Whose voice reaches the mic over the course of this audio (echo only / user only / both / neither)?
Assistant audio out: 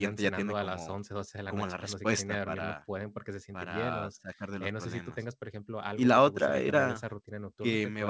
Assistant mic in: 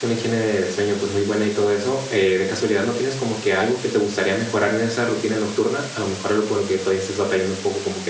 user only